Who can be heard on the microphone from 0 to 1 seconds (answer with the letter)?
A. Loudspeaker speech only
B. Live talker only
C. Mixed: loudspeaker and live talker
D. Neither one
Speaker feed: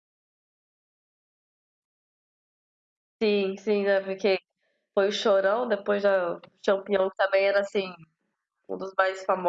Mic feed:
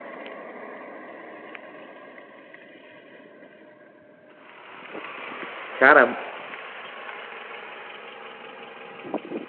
D